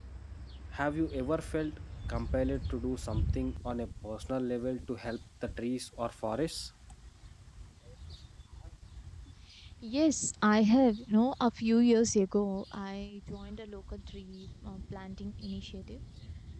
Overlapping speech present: No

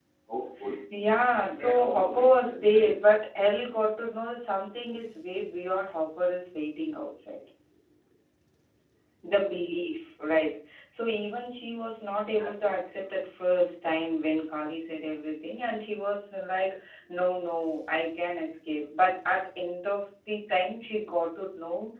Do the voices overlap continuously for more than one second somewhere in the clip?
Yes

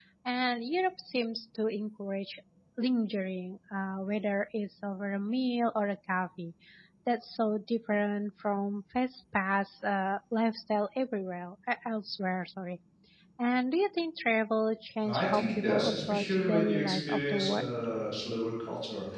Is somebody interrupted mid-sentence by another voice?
Yes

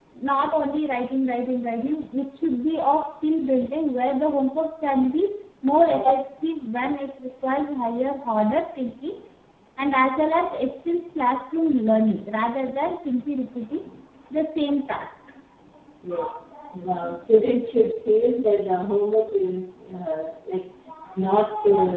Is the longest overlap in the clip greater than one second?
No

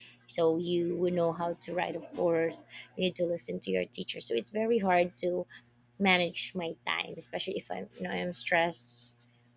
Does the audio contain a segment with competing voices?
No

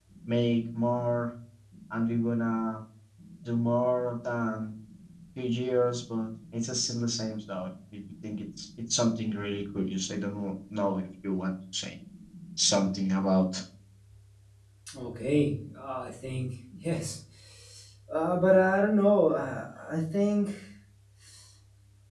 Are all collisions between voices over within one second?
Yes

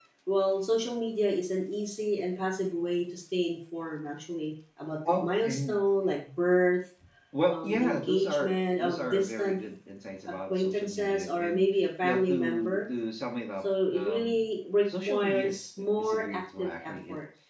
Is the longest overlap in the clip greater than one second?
Yes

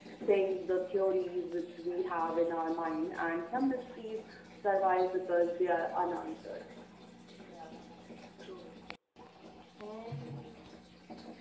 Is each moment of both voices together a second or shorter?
Yes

